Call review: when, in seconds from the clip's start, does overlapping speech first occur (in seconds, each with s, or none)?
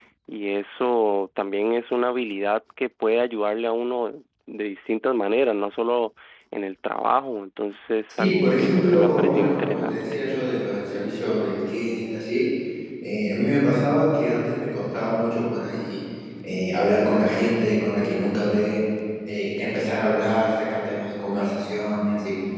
8.2 s